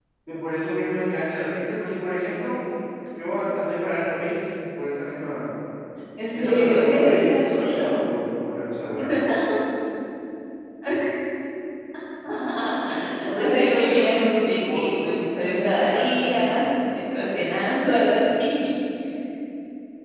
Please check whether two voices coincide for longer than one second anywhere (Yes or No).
Yes